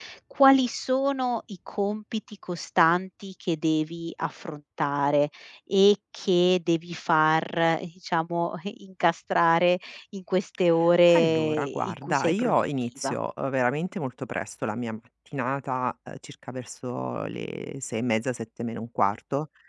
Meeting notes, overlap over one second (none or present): present